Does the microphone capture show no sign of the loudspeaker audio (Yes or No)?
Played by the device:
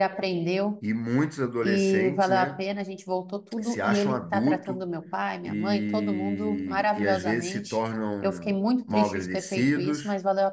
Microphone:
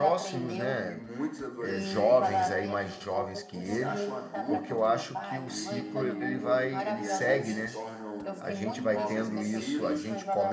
No